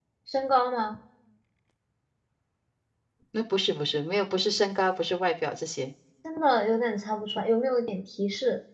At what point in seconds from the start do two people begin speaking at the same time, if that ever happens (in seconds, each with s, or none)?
none